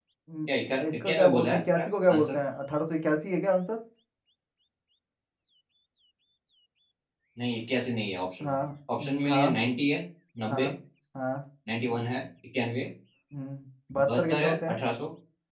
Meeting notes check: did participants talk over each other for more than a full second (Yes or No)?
Yes